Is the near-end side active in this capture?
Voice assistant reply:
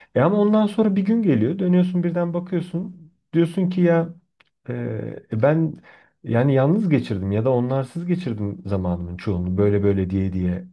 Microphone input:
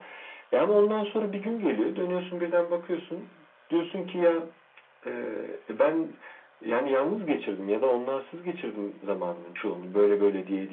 No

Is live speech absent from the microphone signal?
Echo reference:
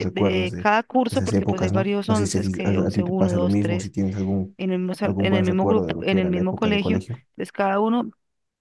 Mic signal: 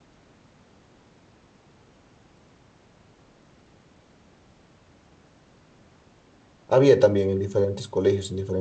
No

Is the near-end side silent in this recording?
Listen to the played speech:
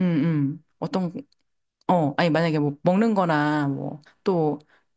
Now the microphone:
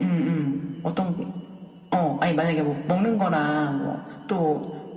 Yes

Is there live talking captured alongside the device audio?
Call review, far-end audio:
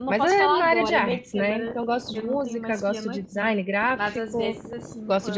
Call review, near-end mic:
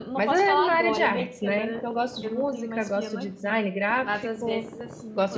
No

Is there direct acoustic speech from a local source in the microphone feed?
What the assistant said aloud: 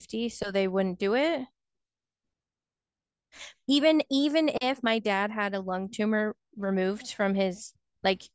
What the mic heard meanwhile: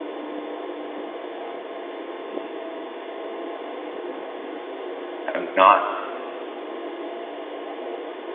Yes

